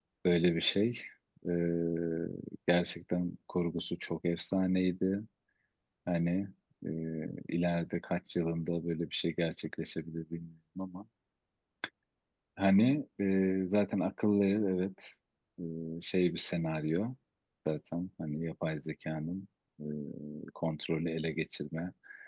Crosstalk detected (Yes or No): No